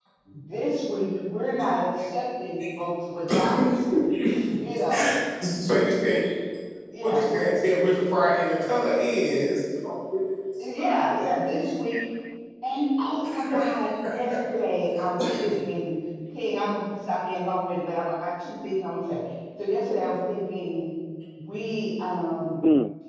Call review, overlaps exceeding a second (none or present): none